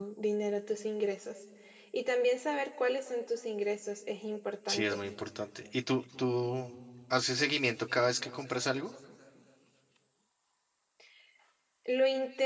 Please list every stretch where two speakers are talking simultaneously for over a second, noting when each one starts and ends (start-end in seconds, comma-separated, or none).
none